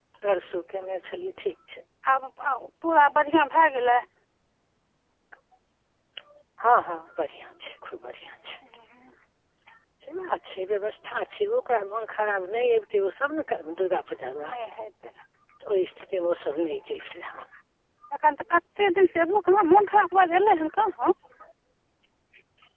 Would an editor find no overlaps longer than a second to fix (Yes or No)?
Yes